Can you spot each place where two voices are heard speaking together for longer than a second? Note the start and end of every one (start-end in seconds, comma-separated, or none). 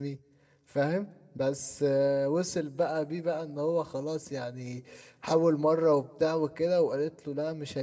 none